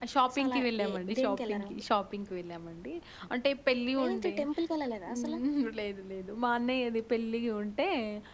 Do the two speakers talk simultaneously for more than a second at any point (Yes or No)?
Yes